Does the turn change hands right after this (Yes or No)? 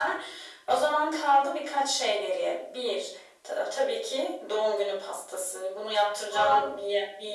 No